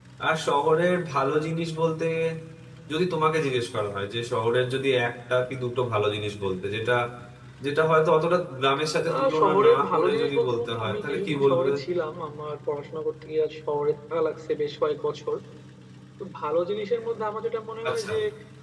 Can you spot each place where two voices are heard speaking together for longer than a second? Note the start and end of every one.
9.1-11.7

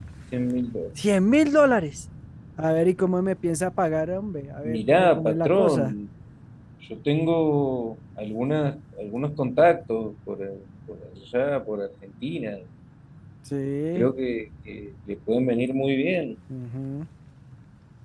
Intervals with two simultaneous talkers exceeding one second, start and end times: 4.7-5.9

